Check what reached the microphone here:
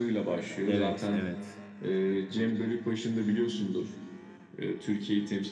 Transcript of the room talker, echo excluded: evet evet

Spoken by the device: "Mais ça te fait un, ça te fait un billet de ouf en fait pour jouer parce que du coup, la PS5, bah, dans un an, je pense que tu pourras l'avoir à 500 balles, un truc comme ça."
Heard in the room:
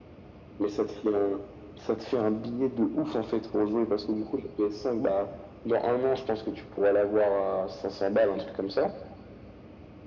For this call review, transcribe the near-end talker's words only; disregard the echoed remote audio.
none

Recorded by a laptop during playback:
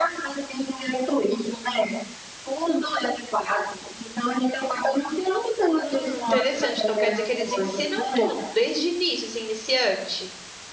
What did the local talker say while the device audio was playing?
Hum, interessante. Então quer dizer que eles ensinam tudo desde início, assim, iniciante.

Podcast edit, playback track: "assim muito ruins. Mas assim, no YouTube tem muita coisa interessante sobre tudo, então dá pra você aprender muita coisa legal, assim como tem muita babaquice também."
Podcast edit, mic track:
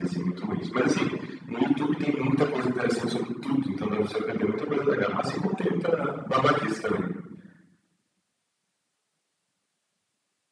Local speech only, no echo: none

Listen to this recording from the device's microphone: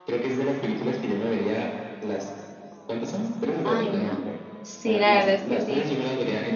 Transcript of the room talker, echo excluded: Ay, no. Sí, la verdad es que sí.

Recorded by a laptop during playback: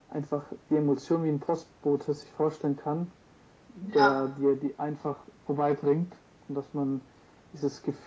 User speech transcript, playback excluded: ja,

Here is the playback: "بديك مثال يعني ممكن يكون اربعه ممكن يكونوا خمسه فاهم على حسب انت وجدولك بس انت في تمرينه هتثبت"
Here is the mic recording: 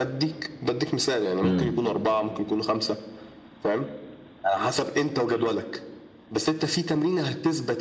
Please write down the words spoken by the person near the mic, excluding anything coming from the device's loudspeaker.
امم

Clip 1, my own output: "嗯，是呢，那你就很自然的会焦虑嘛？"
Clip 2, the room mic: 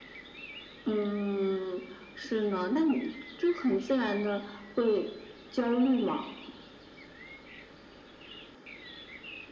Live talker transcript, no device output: none

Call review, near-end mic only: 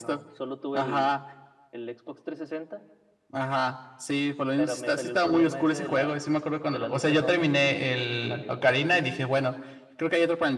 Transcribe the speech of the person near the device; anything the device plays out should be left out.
none

